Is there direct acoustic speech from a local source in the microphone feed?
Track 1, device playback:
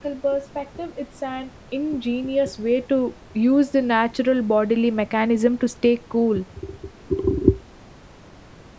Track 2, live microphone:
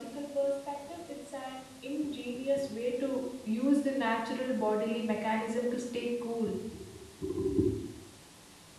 No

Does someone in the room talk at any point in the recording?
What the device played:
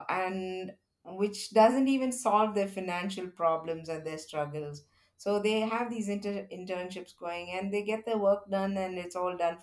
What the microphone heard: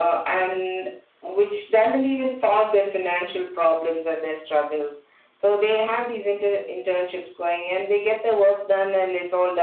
No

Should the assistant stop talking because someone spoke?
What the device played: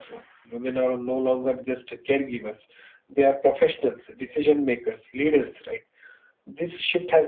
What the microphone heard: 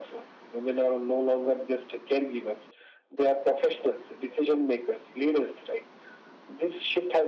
No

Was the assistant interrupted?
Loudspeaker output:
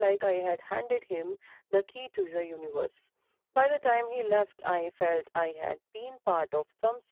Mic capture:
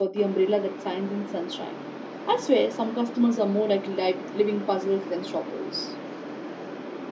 Yes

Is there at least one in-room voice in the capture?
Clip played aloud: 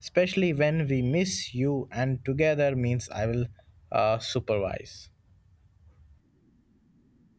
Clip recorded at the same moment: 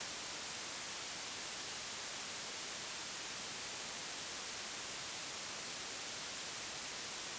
No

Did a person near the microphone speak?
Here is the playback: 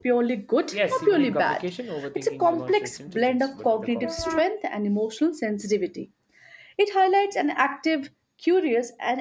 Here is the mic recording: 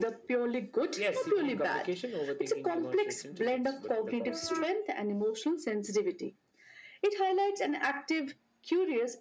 No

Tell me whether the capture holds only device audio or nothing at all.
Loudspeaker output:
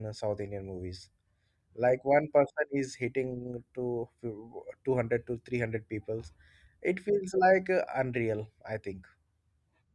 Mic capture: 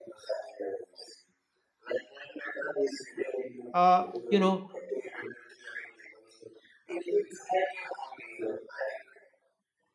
No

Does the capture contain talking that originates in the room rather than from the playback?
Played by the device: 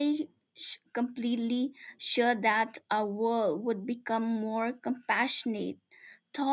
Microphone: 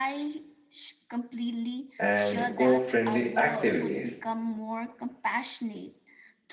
Yes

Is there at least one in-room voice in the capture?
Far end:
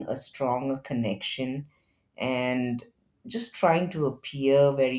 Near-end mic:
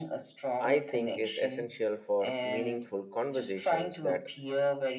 Yes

